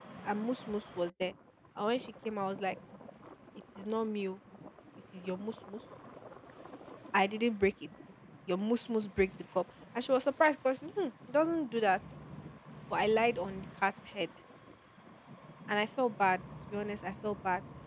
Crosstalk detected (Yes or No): No